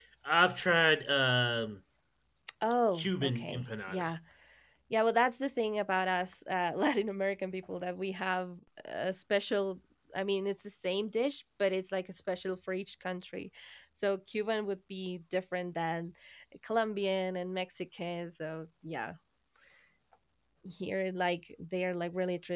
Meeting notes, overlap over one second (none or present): present